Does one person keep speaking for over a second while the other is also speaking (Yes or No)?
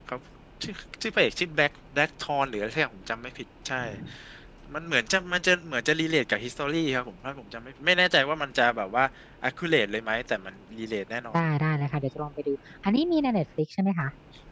No